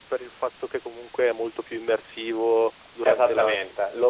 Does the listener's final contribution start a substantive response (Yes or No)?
Yes